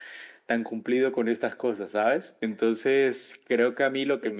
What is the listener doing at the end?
listening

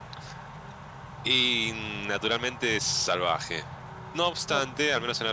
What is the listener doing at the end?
listening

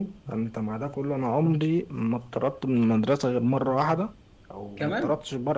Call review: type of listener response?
listening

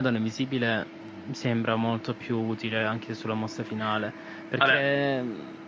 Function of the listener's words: listening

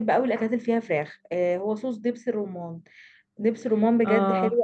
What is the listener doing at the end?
listening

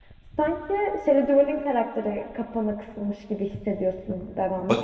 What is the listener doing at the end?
taking over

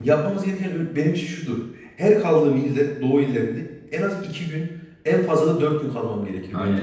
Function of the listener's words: taking over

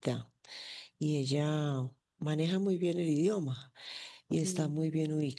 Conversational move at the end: listening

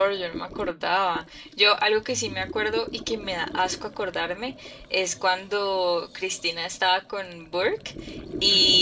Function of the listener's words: listening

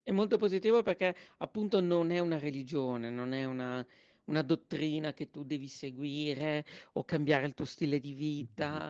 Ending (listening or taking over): listening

